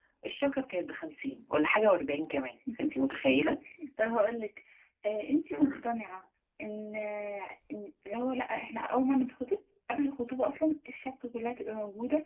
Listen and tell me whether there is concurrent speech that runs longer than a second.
No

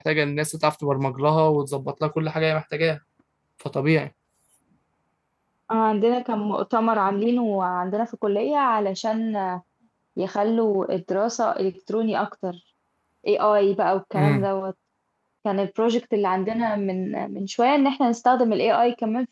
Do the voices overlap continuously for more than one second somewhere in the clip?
No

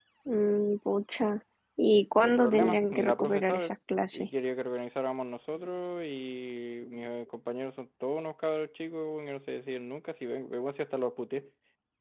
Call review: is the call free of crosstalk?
No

